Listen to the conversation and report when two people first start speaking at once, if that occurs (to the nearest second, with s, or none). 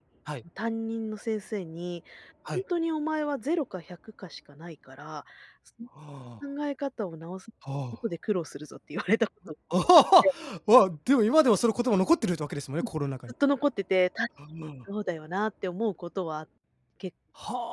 none